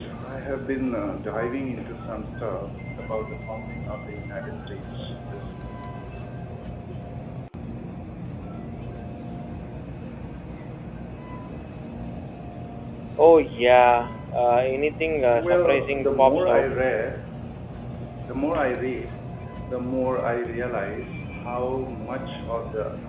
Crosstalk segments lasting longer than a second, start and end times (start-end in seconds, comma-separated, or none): 15.3-16.7